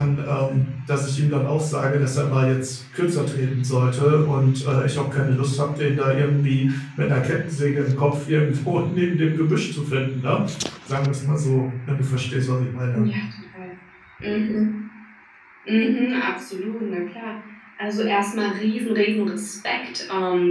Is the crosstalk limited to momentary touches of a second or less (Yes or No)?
Yes